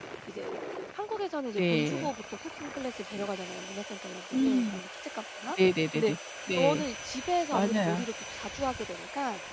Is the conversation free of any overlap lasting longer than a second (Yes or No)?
Yes